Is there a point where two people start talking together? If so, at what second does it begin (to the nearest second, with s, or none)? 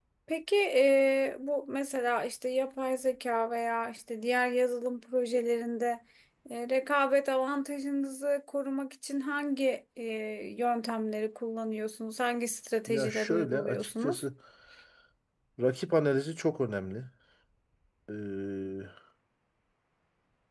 13 s